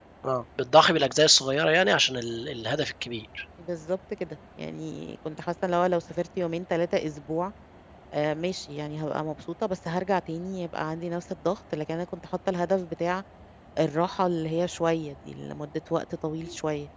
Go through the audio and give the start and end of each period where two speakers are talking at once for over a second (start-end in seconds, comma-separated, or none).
none